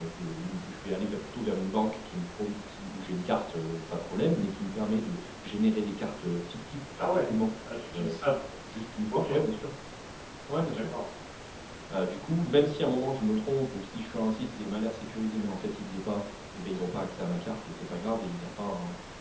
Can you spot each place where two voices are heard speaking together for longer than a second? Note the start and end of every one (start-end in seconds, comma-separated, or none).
none